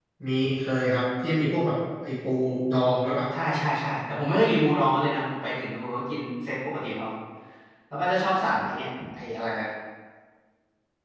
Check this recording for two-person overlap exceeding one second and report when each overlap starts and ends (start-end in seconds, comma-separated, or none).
none